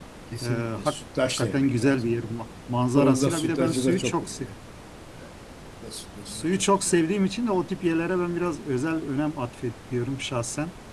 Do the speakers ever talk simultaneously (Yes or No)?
Yes